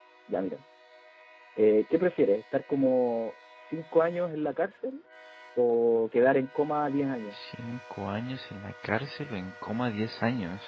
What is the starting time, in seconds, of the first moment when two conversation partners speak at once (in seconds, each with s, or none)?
none